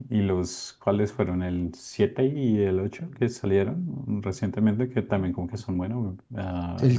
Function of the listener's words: taking over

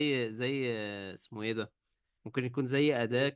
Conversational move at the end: listening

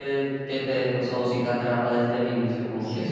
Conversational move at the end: taking over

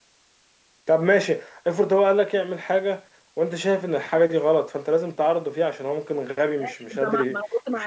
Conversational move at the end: taking over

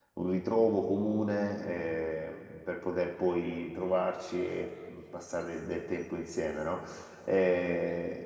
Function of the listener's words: listening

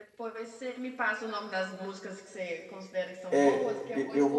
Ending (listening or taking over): taking over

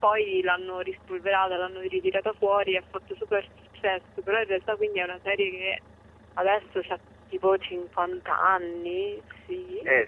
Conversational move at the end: taking over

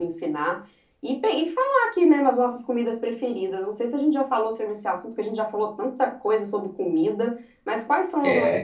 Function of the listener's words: taking over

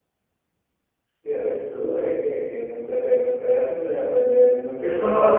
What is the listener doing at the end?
taking over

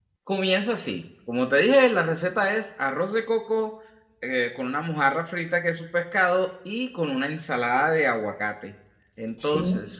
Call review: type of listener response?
listening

